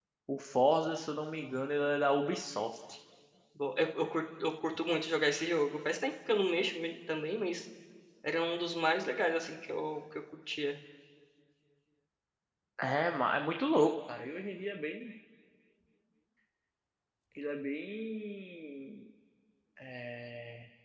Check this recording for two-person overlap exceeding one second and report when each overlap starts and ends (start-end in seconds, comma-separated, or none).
none